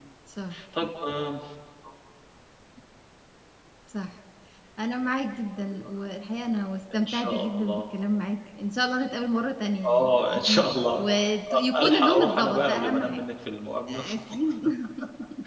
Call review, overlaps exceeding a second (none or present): present